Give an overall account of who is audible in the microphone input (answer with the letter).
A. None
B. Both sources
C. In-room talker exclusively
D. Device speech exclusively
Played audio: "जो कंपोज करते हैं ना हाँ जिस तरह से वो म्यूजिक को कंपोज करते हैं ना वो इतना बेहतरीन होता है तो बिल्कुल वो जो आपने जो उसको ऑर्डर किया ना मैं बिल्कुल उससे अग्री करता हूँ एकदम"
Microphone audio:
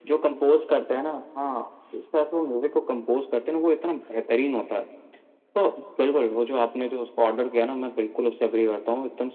D